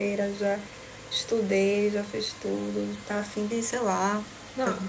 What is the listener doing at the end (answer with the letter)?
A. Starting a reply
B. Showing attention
A